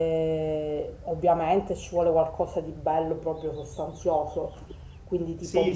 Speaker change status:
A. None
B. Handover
B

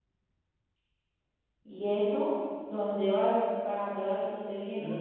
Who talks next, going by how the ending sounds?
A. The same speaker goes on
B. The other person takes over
B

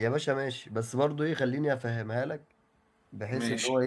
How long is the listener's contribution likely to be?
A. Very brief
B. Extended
A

